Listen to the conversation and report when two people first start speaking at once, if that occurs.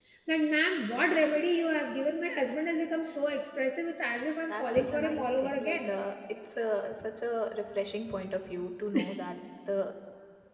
4.5 s

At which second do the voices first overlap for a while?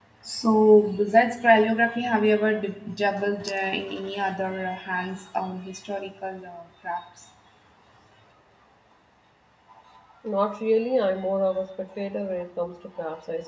none

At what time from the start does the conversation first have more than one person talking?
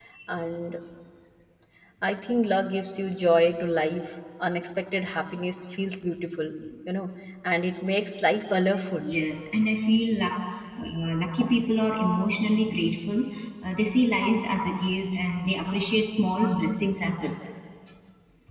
none

